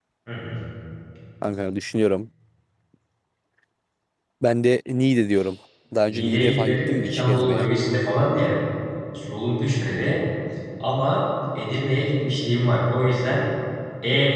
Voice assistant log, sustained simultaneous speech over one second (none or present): present